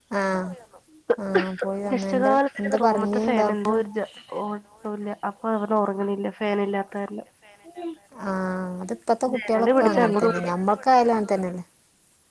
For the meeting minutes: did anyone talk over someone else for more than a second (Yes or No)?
Yes